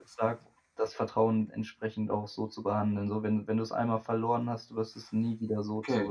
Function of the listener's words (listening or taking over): taking over